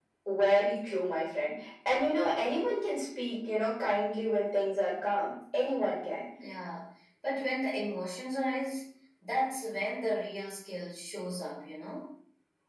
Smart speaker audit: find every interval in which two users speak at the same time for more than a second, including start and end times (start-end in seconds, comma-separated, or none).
none